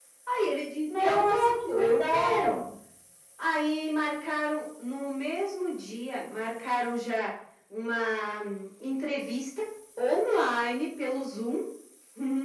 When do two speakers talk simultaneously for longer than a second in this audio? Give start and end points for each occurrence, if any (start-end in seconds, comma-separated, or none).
1.0-2.6